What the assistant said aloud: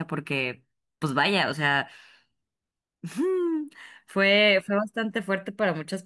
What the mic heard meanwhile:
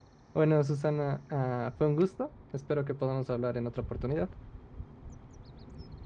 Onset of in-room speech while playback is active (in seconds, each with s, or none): 0.3 s